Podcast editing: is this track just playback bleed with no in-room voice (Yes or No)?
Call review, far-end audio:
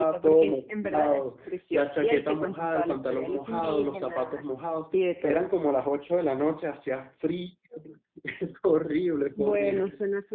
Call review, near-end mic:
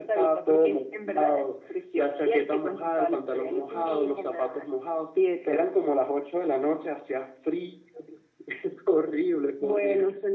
Yes